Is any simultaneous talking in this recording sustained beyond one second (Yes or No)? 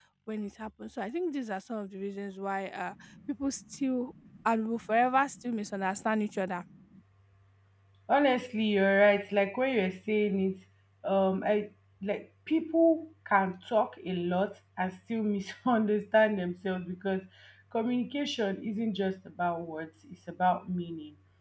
No